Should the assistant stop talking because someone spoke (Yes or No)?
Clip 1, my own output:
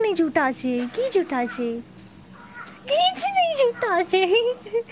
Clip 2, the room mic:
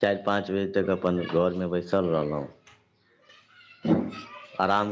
Yes